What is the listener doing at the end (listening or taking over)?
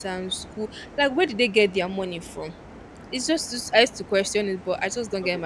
taking over